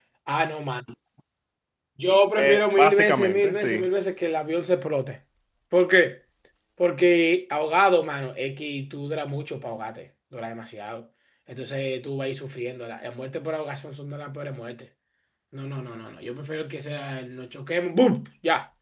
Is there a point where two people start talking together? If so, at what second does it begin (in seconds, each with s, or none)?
2.4 s